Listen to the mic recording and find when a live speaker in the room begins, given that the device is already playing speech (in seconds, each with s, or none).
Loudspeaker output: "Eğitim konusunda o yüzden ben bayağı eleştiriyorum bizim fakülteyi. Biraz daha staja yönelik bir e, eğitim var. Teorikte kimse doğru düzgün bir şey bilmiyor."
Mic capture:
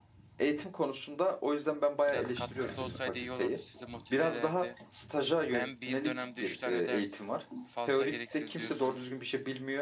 2.1 s